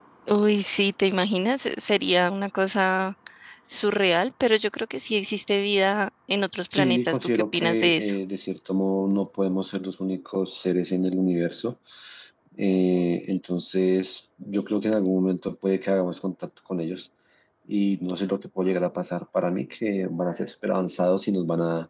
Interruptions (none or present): present